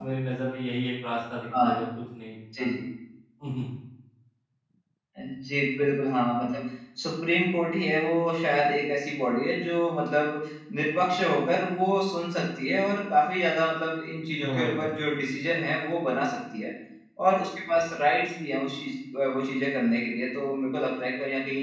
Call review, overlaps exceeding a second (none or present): none